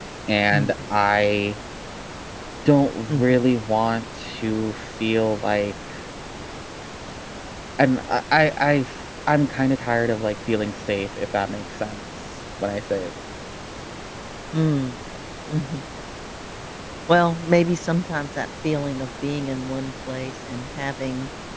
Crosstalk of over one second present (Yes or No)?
No